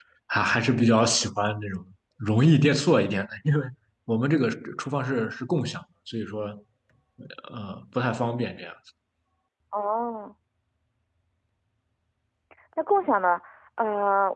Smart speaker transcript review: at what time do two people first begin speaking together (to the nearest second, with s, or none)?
none